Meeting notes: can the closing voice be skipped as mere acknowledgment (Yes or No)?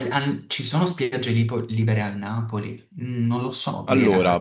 No